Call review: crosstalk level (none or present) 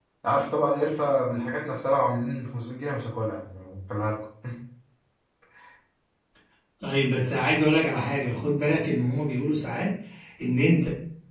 none